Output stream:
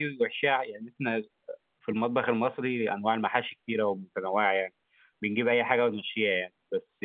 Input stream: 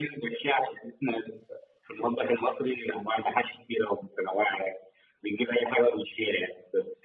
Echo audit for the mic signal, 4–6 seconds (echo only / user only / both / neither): echo only